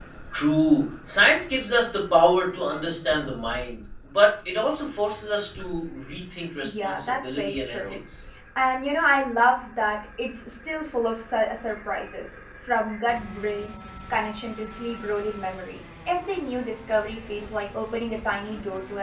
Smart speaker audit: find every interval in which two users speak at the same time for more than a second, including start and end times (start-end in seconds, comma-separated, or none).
6.6-8.0